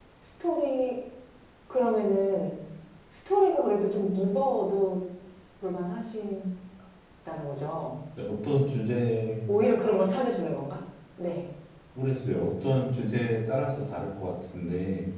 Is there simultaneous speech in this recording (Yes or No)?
No